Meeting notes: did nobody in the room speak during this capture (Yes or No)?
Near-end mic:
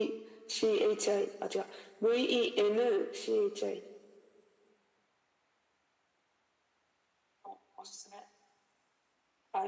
Yes